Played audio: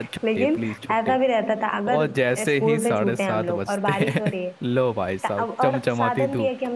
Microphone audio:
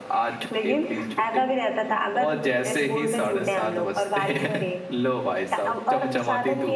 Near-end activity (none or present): none